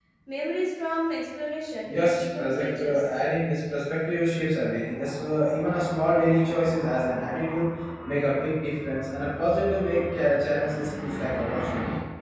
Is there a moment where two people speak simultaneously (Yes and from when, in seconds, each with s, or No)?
Yes, from 1.9 s